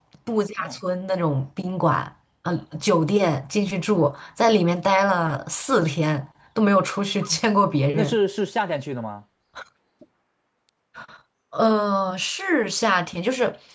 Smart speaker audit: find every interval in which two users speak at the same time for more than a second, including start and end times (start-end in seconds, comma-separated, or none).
none